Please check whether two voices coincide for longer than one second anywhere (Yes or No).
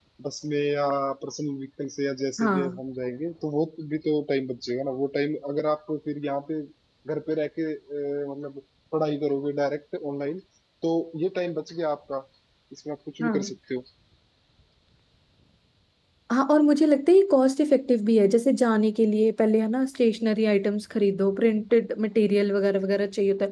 No